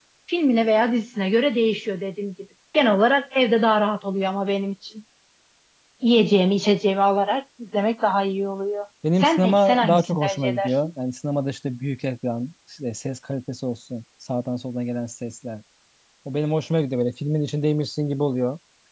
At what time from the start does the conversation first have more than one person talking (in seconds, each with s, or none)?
9.0 s